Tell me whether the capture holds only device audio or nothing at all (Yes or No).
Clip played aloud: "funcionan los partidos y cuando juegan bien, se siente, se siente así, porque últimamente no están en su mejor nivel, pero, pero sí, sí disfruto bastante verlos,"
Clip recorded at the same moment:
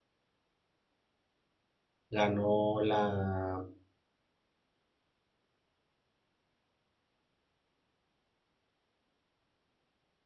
No